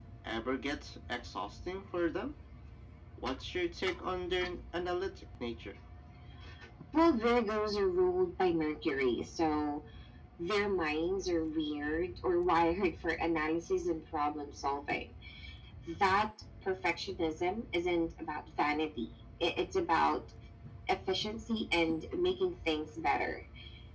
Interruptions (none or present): none